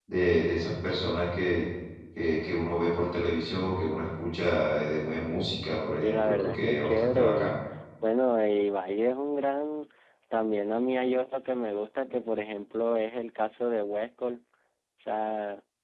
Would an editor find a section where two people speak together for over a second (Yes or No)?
Yes